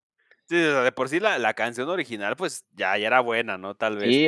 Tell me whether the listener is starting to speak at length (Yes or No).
Yes